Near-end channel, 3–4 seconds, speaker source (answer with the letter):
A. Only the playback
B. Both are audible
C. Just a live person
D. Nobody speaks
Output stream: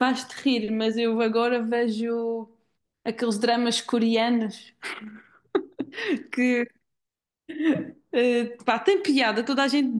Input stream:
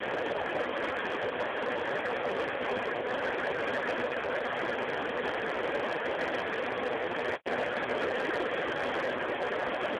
D